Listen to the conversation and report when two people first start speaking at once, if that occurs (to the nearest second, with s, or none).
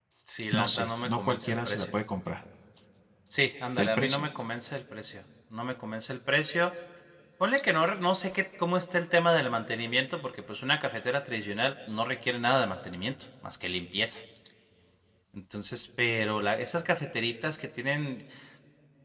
1 s